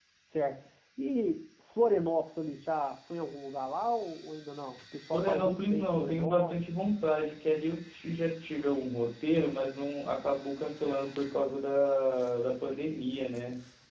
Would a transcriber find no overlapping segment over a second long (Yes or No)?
No